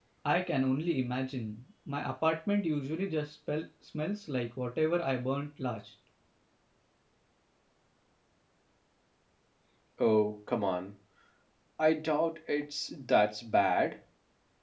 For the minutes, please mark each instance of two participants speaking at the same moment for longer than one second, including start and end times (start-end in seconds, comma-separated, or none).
none